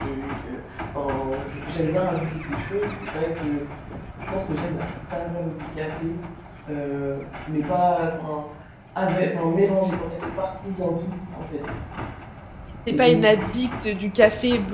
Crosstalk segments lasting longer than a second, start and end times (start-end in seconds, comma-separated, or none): none